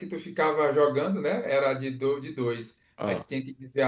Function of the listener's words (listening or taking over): listening